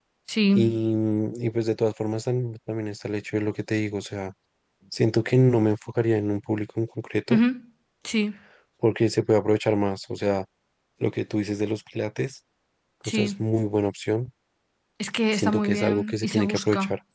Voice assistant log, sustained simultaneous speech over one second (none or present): present